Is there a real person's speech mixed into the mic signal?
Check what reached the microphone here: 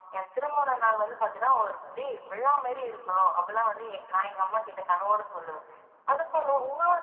No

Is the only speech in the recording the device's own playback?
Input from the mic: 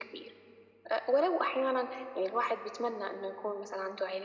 Yes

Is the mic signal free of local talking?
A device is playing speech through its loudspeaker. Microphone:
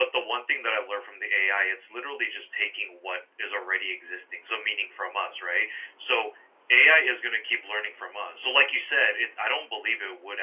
Yes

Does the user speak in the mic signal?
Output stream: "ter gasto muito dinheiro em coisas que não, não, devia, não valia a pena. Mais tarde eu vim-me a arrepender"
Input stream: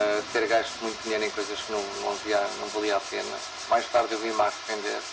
No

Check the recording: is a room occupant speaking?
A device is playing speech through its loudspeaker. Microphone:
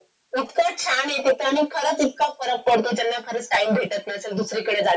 No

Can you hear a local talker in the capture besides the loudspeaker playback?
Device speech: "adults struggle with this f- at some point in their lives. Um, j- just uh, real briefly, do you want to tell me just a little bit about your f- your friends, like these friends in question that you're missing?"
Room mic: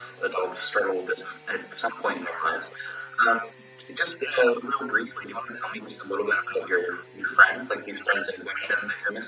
No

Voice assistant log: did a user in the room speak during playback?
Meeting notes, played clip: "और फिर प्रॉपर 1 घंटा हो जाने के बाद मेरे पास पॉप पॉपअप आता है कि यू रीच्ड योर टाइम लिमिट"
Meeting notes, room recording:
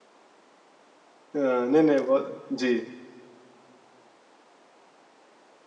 Yes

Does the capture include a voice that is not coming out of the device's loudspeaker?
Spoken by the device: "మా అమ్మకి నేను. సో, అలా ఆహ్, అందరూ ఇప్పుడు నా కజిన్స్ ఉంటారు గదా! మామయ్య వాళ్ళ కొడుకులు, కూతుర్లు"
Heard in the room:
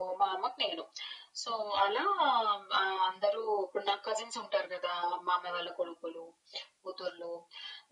No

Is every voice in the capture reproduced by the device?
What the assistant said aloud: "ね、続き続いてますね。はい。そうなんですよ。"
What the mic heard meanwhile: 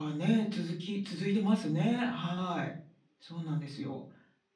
Yes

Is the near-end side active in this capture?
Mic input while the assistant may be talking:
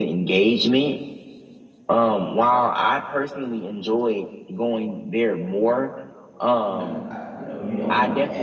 Yes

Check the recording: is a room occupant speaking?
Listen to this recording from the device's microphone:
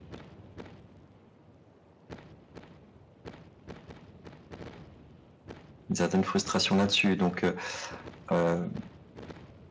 Yes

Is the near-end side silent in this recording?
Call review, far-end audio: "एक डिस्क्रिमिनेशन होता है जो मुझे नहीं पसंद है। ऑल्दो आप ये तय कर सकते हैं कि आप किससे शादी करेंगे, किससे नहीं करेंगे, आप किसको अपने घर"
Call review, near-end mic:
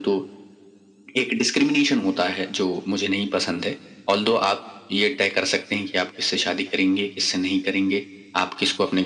Yes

